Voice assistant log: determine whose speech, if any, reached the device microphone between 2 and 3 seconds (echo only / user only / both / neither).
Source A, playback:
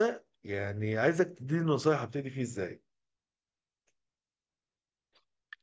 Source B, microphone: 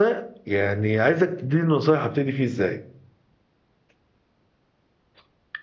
echo only